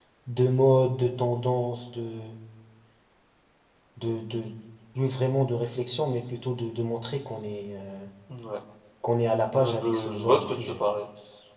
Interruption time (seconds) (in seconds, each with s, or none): 9.5 s